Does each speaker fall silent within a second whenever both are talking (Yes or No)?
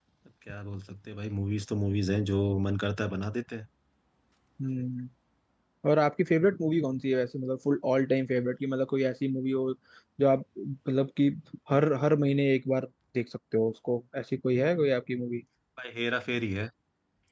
Yes